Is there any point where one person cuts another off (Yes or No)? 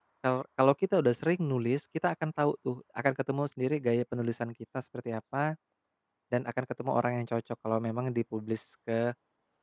No